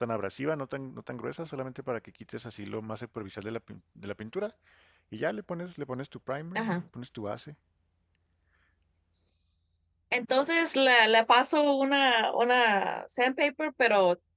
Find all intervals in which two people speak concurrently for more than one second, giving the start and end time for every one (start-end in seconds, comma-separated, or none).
none